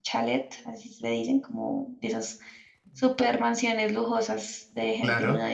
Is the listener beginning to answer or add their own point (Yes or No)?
No